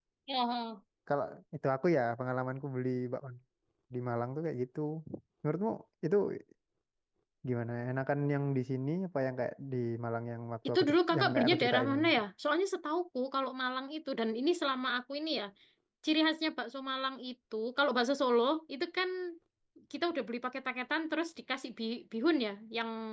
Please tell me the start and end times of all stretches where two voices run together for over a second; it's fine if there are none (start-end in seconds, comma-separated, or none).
10.7-12.1